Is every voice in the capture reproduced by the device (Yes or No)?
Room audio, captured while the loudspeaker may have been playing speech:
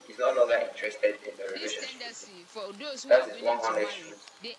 No